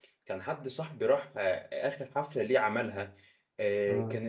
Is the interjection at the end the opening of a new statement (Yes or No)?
No